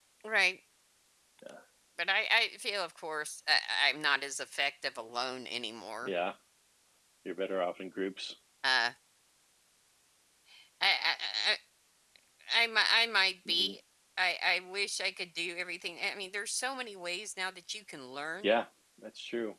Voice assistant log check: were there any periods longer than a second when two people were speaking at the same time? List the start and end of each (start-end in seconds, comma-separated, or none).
none